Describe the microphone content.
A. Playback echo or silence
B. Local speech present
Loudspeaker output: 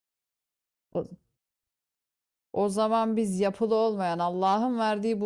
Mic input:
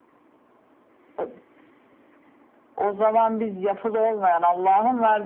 A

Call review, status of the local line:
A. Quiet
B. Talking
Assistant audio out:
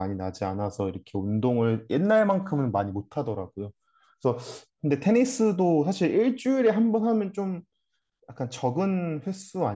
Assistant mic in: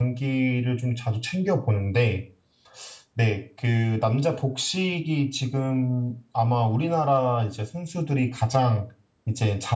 B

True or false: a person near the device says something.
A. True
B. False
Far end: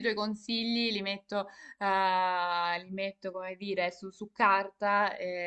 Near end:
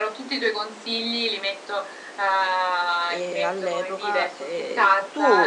A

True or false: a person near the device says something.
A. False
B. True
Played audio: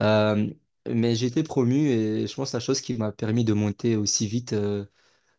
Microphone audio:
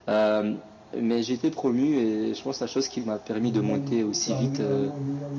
B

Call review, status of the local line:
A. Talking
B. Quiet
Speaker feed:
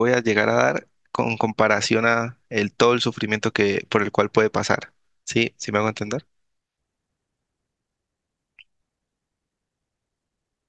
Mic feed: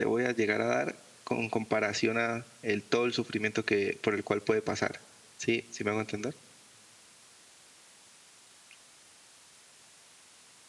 B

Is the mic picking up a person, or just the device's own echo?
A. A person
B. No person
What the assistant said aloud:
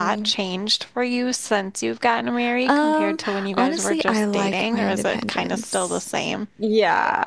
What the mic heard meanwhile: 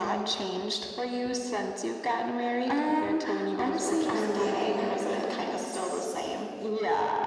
B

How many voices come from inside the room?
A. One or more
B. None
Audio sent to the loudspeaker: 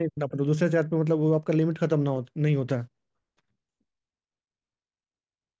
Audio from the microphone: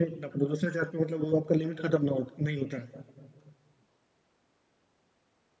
B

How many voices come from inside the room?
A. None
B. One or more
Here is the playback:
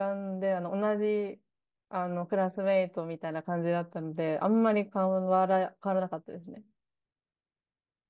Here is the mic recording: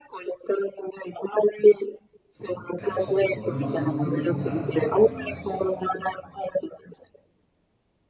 B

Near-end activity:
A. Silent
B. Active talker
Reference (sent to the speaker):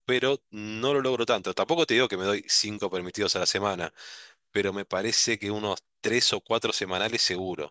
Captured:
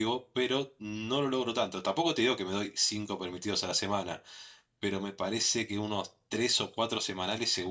A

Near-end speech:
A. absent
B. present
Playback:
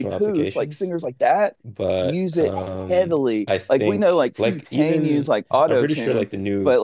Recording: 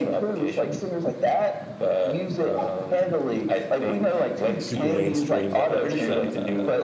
B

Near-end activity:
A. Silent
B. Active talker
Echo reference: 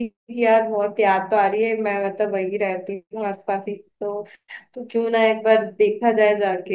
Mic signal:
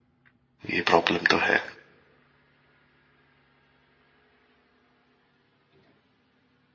B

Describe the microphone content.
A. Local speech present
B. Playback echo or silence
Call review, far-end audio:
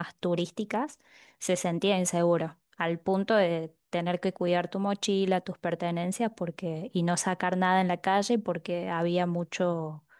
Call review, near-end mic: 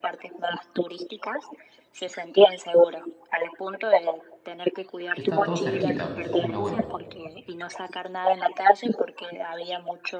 A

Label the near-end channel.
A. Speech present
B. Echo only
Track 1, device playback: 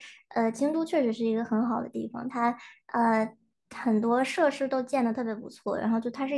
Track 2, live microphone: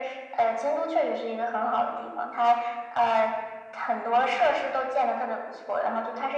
B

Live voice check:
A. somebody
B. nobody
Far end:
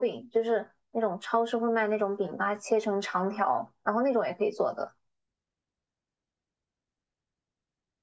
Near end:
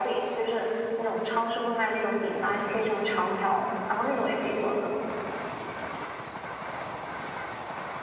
B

